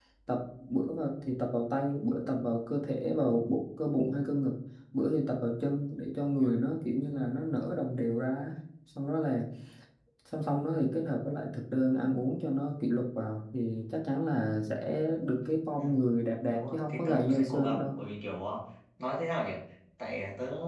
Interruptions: present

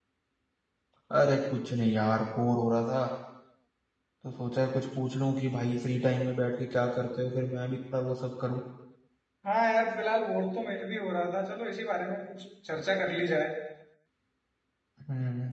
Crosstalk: none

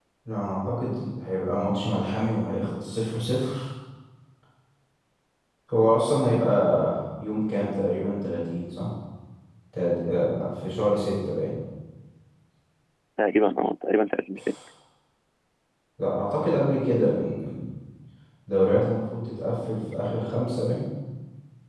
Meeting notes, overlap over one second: none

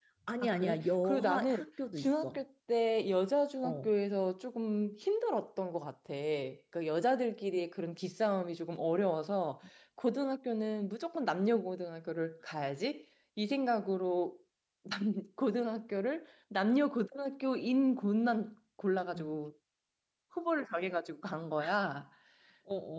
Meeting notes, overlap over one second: present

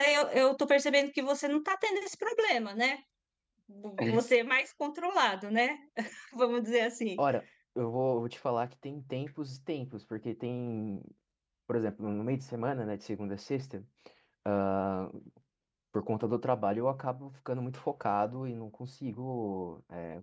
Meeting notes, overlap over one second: none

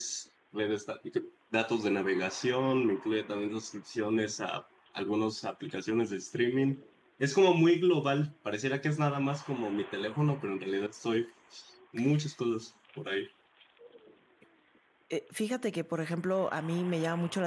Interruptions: none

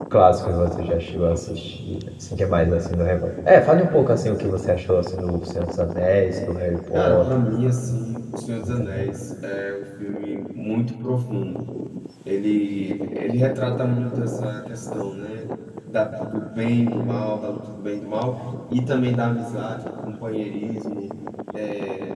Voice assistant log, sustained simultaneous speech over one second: none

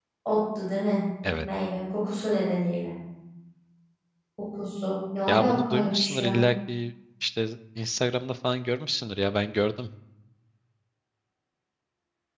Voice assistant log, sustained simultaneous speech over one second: present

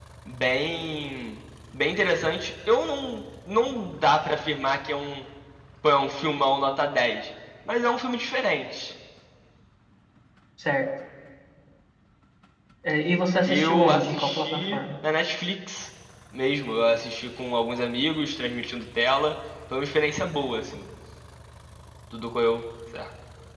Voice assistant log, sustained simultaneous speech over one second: present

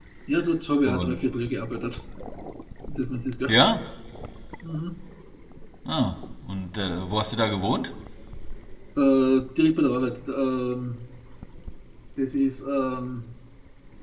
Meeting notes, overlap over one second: none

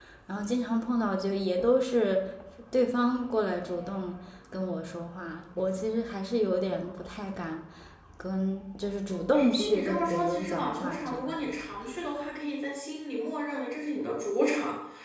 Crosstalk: present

